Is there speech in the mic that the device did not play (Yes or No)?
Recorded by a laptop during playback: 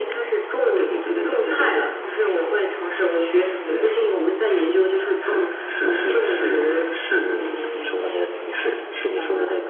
No